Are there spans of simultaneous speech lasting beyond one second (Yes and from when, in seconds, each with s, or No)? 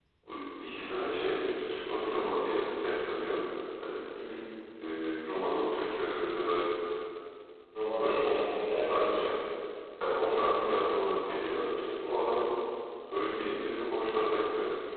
Yes, from 8.0 s